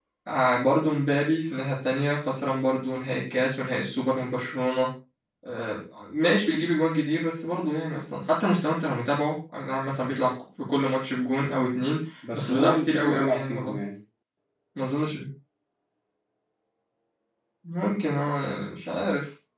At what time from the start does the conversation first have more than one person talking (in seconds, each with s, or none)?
12.2 s